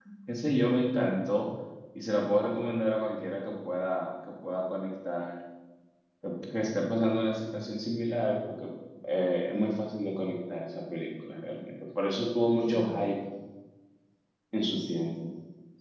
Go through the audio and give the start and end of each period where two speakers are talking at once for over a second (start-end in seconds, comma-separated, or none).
none